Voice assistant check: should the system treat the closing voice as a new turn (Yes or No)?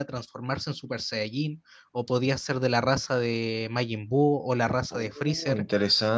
Yes